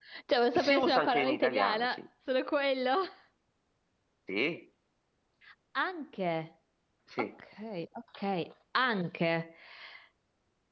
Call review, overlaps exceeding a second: present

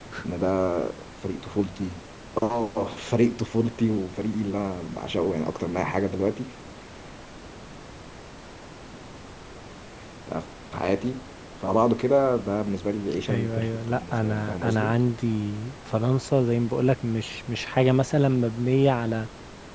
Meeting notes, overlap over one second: present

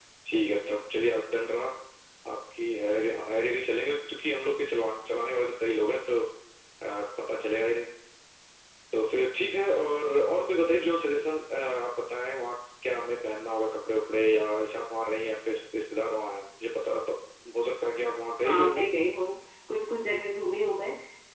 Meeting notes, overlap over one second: none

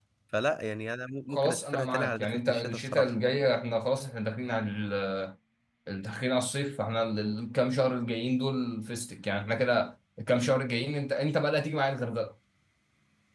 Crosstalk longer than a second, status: present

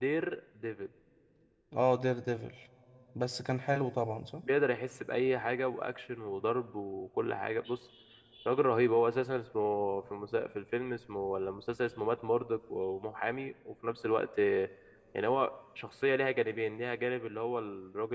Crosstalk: none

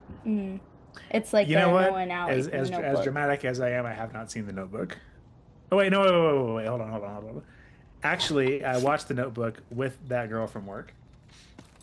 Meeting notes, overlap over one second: present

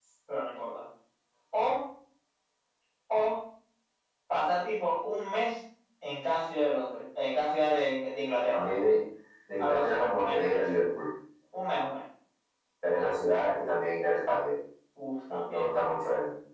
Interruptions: present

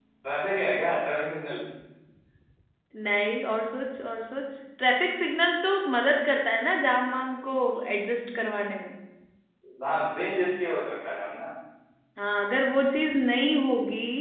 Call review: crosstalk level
none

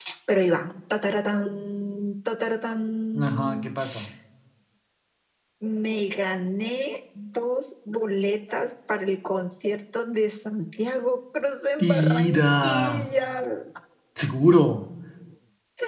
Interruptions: present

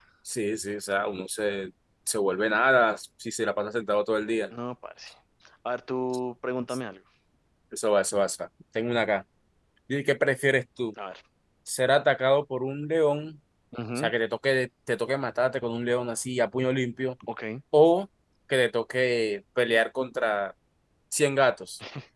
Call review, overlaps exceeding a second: none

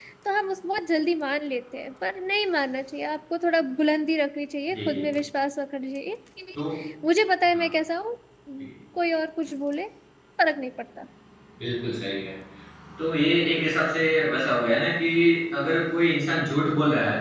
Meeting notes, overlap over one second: none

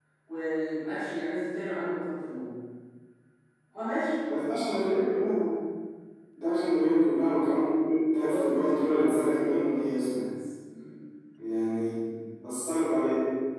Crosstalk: present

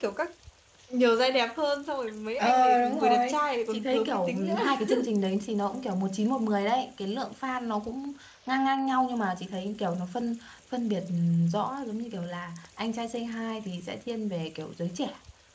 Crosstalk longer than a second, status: present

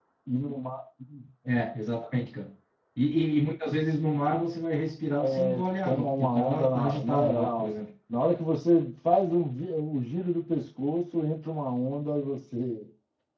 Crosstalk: present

